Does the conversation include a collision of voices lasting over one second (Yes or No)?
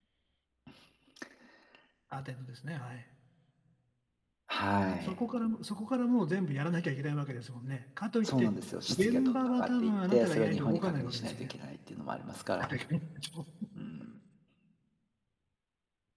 Yes